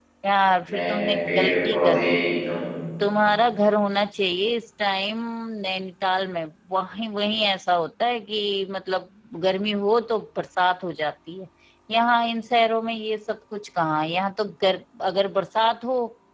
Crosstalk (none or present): present